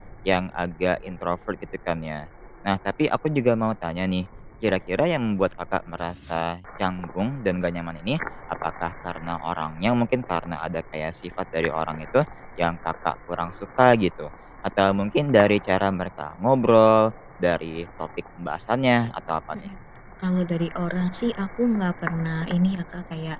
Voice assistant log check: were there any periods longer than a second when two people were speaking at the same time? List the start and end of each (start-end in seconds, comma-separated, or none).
none